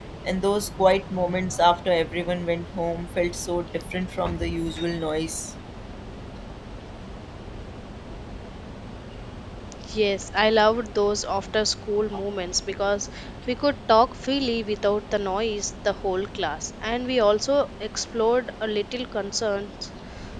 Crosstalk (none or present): none